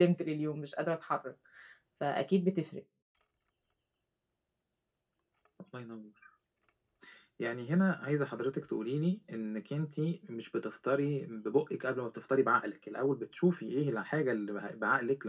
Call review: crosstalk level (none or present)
none